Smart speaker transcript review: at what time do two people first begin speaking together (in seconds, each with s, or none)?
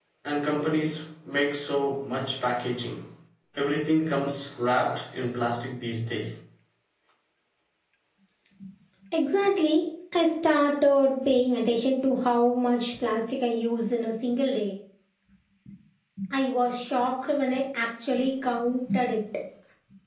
none